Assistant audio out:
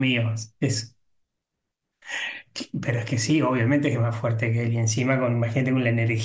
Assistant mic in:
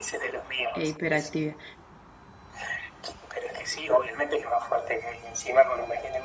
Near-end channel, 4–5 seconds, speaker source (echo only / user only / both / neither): echo only